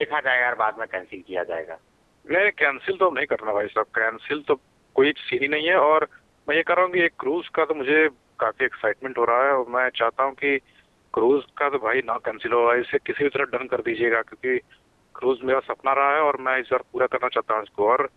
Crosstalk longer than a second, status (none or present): none